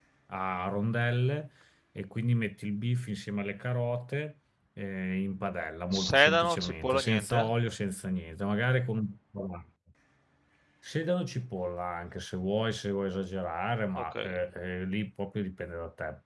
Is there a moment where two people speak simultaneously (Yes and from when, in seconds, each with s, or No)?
Yes, from 6.1 s